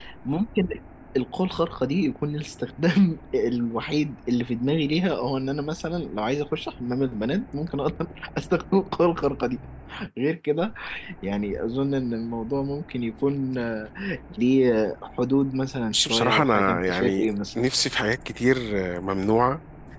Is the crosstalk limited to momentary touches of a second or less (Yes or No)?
No